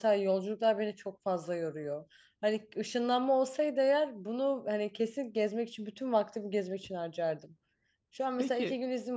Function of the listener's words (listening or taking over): listening